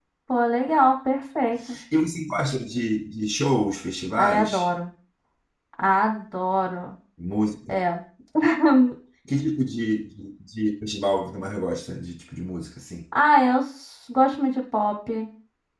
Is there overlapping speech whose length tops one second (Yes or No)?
No